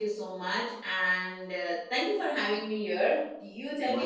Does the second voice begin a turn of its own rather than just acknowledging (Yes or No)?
Yes